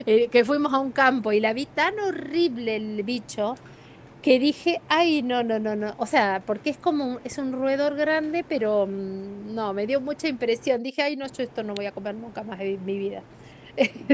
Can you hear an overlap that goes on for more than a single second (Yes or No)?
No